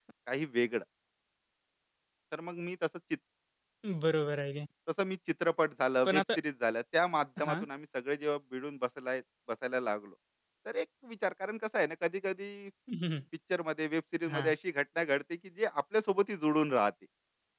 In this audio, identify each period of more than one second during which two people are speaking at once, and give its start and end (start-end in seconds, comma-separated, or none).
none